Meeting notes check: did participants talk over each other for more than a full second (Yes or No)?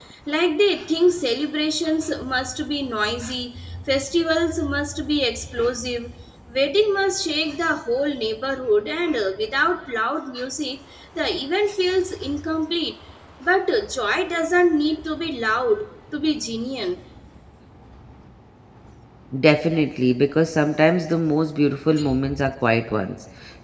No